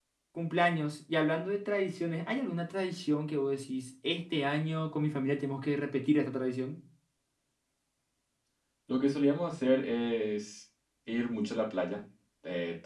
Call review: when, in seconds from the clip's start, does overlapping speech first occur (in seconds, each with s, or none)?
none